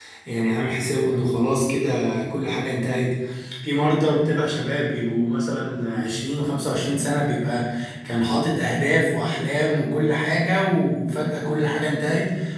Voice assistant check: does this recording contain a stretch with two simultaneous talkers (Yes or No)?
No